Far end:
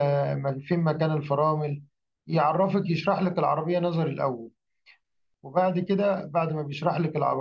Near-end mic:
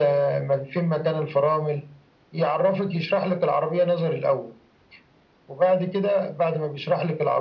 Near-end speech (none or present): none